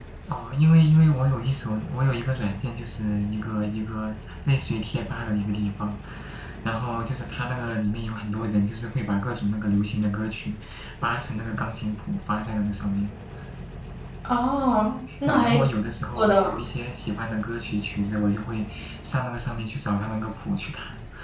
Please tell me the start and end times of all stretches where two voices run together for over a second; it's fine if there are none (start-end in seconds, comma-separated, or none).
none